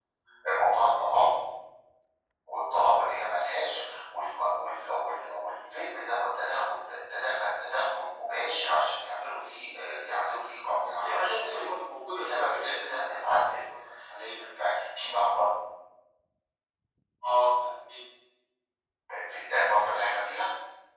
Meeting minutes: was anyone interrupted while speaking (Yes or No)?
Yes